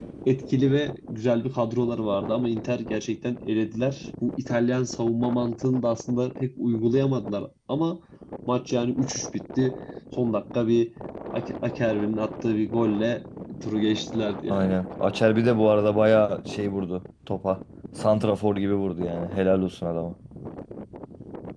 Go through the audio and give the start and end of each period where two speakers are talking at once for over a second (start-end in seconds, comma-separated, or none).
none